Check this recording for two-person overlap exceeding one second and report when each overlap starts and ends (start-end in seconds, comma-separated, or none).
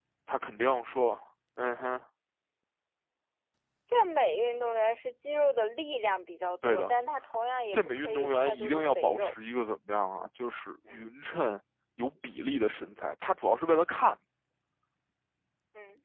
7.7-9.3